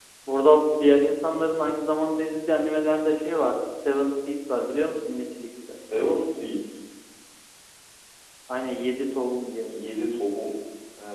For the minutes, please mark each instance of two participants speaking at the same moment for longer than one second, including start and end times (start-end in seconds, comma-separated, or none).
none